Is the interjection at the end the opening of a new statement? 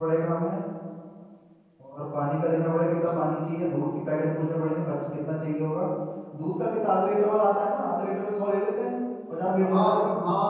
Yes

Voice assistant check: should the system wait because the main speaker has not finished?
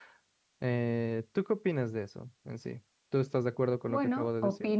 No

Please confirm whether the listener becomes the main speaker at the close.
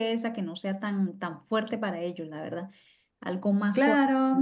Yes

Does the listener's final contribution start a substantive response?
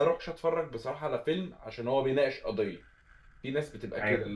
No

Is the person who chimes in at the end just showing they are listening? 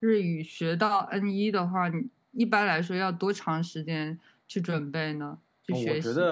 No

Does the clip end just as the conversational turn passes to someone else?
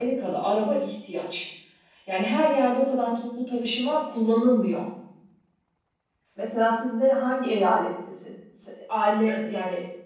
No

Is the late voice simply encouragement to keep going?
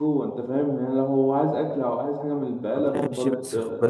No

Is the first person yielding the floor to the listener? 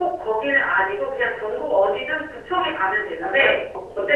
No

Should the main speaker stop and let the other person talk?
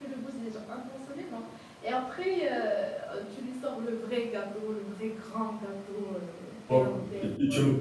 Yes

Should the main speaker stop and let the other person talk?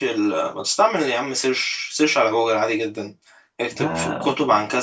No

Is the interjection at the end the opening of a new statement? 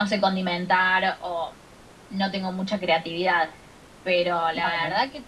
No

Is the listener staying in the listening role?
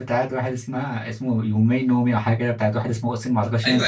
No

